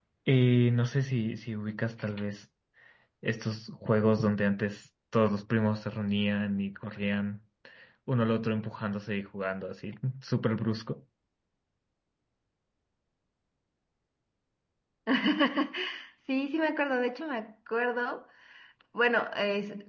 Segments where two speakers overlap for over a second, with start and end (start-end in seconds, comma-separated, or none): none